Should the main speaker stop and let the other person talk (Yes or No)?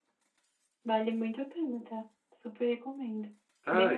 Yes